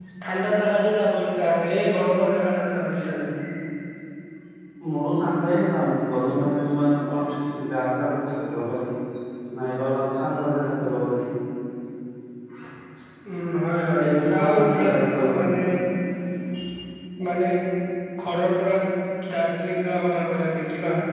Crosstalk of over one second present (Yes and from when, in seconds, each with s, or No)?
Yes, from 14.0 s